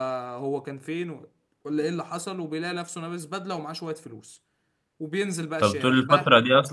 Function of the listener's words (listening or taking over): taking over